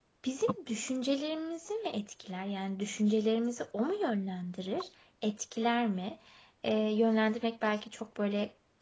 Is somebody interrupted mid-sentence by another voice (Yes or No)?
No